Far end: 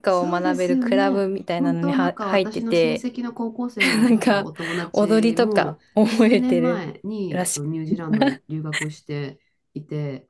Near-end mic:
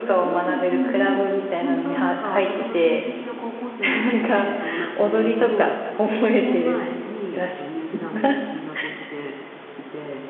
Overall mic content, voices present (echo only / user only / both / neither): echo only